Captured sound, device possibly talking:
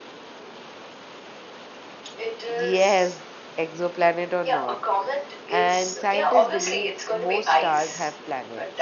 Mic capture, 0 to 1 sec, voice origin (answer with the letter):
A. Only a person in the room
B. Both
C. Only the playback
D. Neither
D